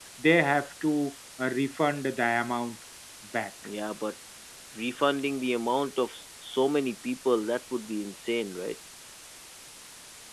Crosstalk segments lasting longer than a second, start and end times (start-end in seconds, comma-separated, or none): none